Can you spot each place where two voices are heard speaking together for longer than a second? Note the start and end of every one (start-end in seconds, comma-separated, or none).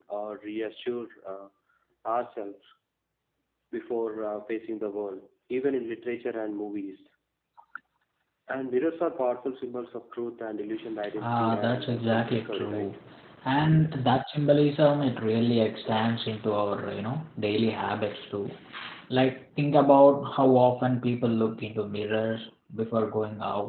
11.2-12.9